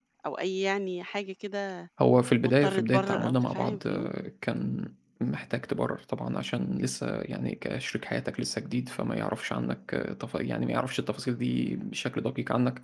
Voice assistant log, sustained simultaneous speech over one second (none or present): present